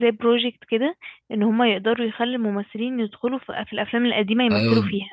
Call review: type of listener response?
taking over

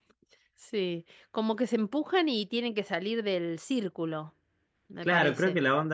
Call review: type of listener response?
taking over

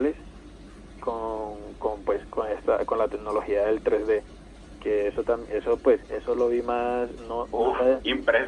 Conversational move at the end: taking over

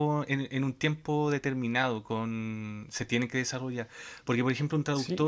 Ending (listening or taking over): taking over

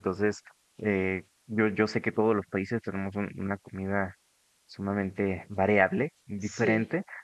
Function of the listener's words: listening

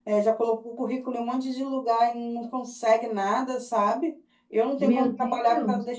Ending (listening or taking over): listening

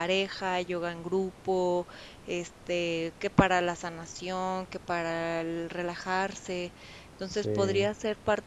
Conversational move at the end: listening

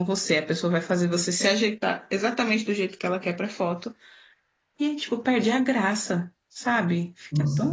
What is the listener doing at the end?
taking over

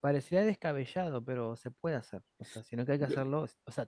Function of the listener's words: listening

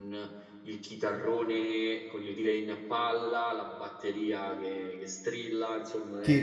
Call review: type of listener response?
taking over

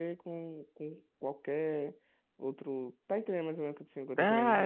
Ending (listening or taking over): taking over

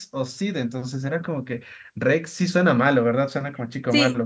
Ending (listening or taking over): taking over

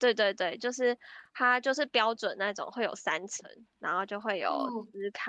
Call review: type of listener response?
listening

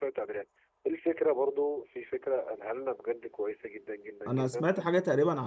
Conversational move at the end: taking over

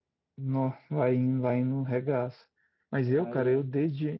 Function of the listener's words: listening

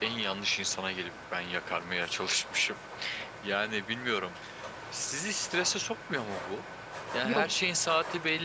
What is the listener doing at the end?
listening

